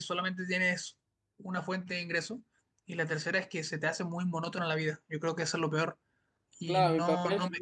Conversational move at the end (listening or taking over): taking over